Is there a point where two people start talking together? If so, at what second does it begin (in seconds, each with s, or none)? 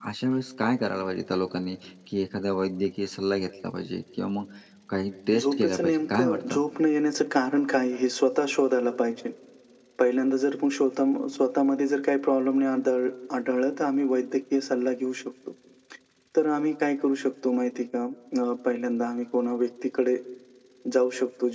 5.4 s